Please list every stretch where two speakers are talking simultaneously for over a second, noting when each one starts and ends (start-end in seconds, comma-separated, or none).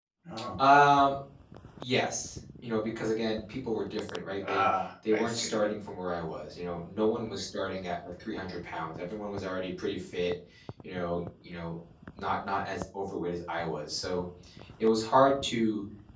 none